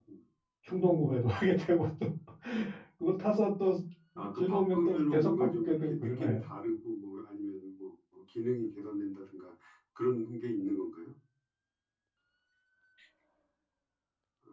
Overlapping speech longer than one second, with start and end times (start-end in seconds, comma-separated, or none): 4.4-6.4